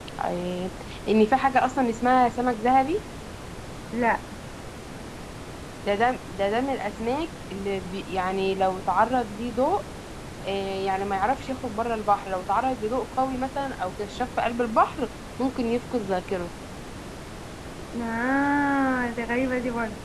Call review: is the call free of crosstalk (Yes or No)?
Yes